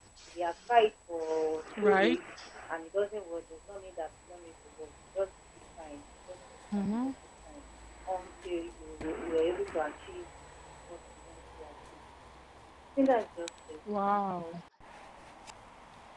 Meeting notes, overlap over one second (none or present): none